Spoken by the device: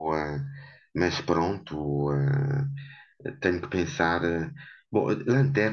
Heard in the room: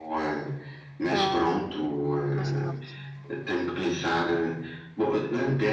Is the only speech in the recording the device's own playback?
No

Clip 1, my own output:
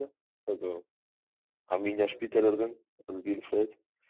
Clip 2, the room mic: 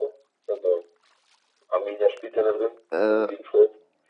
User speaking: Yes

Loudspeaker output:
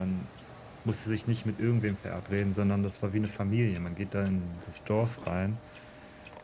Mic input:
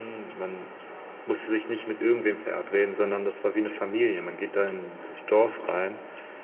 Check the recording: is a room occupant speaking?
No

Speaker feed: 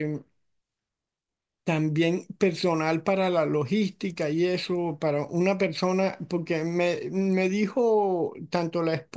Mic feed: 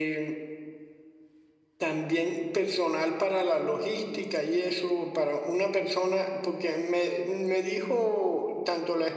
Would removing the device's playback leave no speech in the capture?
Yes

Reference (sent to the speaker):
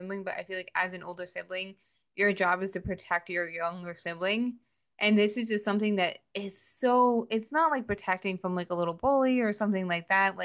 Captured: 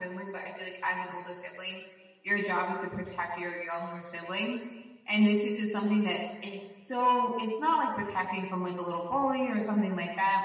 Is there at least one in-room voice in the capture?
No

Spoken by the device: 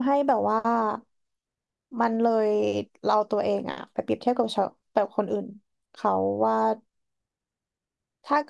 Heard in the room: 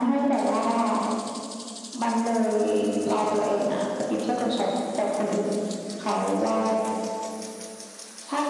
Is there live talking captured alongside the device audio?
No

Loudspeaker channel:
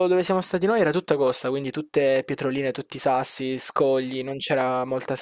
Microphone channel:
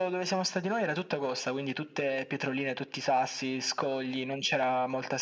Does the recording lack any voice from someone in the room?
Yes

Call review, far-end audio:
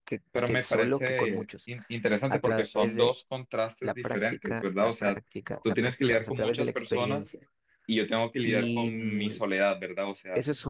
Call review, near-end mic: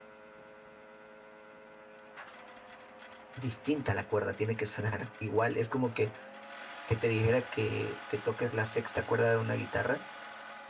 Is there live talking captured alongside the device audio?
Yes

